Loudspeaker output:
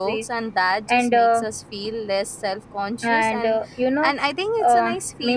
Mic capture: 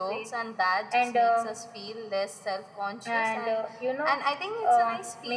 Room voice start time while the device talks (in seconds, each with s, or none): none